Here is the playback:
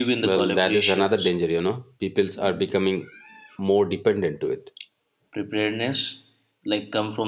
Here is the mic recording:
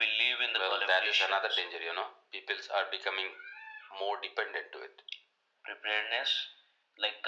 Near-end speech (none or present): none